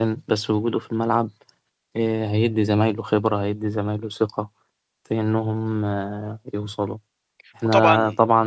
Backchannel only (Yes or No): Yes